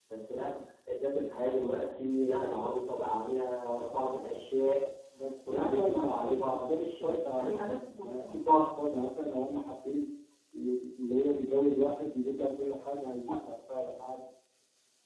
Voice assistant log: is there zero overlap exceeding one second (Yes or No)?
No